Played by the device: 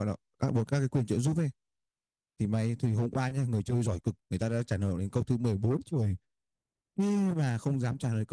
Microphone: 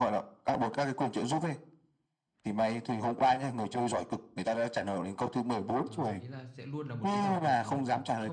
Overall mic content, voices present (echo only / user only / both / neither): both